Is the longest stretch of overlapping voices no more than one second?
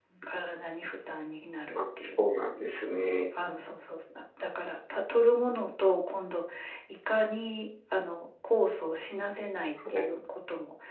Yes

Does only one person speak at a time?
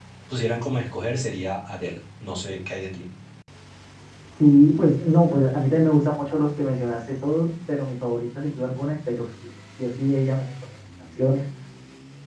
Yes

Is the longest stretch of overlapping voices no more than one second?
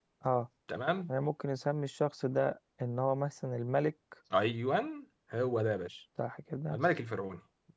Yes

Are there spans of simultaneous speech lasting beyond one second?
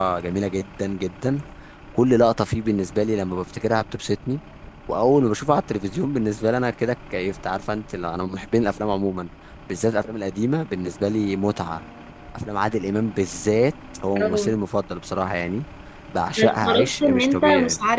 Yes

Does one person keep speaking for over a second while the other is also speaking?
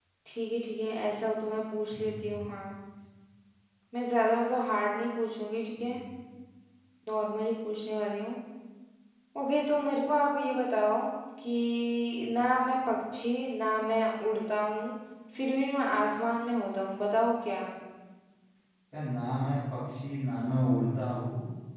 No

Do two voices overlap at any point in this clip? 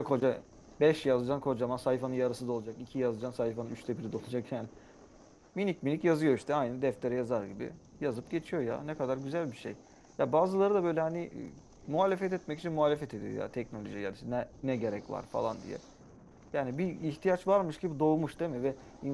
No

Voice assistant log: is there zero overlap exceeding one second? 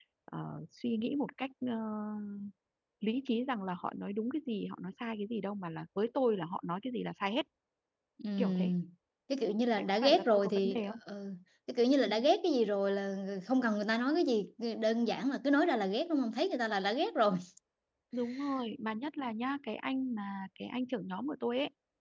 No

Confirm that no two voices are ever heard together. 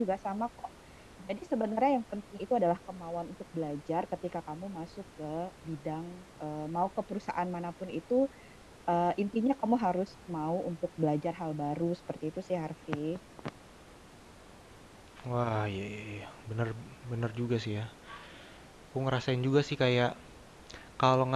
Yes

